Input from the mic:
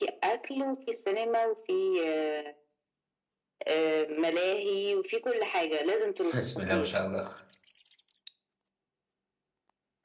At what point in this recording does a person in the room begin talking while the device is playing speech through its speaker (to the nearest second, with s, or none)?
6 s